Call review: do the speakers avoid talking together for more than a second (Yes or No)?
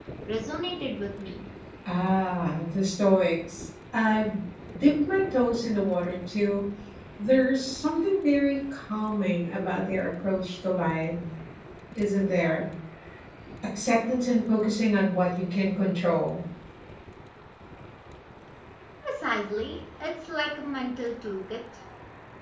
Yes